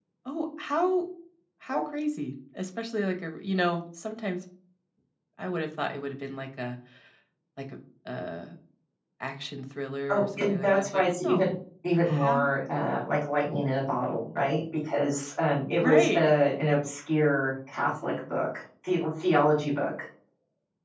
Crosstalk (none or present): present